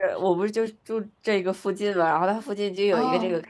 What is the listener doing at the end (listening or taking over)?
listening